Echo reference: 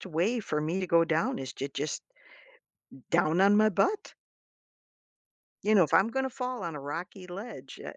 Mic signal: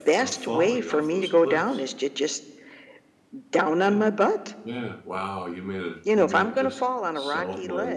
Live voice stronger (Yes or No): No